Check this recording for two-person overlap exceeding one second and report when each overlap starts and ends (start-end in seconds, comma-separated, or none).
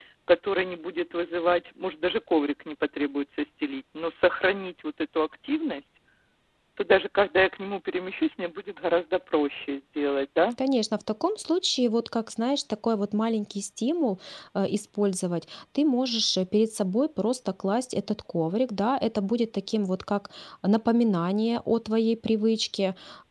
none